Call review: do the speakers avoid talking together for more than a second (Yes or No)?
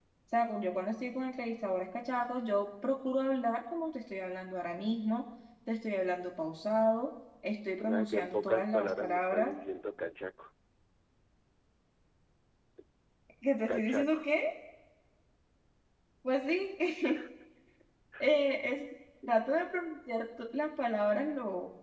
No